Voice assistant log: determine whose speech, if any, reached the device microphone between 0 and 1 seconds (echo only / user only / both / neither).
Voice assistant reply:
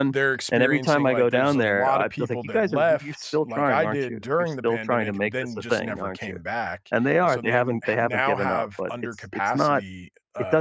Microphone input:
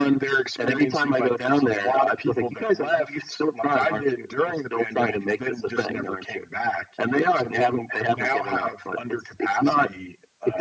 echo only